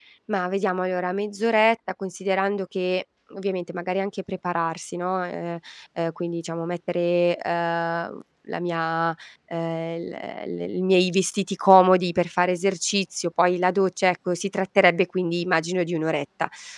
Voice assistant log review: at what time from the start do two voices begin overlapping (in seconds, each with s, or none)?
none